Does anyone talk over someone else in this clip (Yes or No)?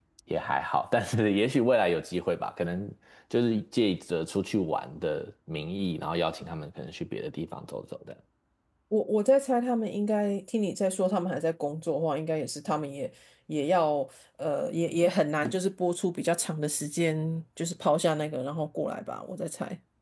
No